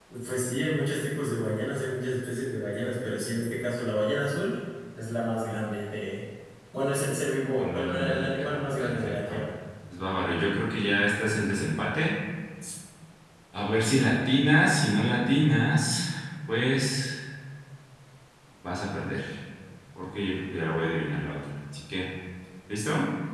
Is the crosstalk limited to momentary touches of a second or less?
No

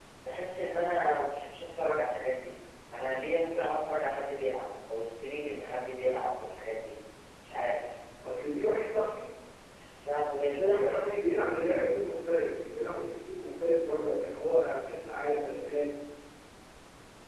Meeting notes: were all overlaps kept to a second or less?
Yes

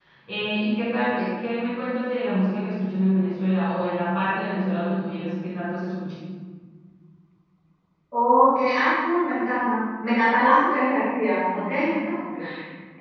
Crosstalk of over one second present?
No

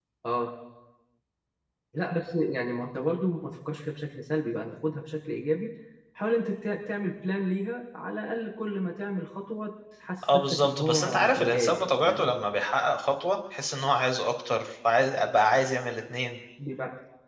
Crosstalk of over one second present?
Yes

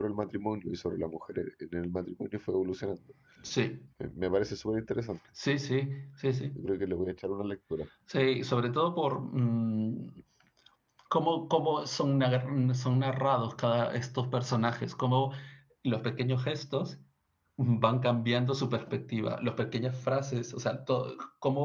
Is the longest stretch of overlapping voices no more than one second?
Yes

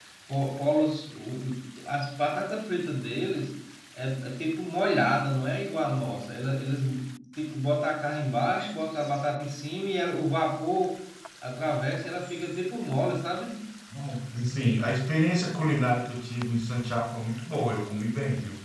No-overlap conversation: Yes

